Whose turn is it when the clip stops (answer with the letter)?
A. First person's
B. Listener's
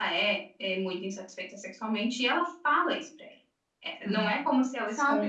B